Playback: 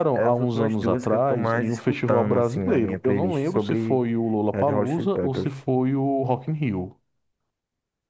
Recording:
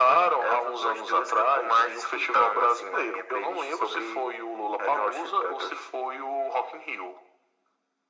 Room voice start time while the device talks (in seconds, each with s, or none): none